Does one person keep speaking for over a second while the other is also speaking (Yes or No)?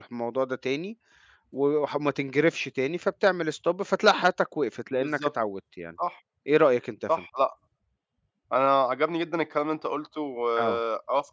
No